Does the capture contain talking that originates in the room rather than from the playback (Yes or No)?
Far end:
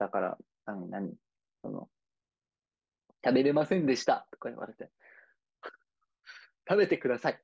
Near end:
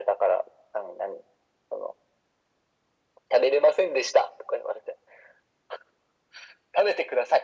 No